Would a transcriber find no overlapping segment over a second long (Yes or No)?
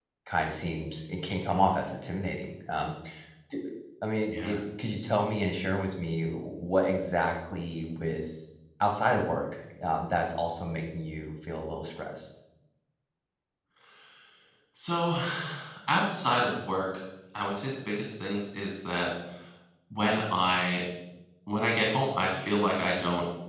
Yes